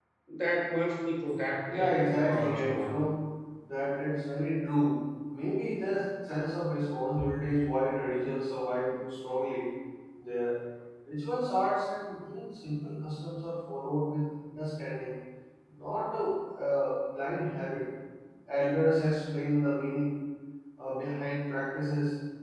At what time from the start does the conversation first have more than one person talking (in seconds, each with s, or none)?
1.6 s